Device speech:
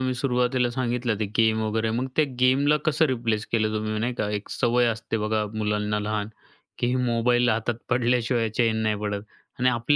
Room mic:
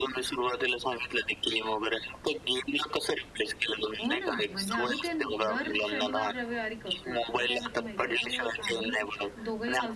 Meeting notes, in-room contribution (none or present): present